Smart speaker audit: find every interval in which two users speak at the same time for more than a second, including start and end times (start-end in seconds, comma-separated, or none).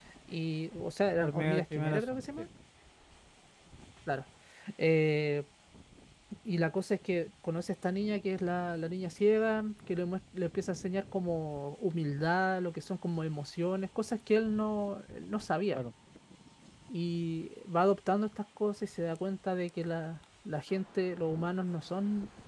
1.2-2.4